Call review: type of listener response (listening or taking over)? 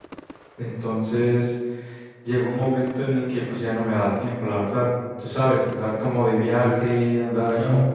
listening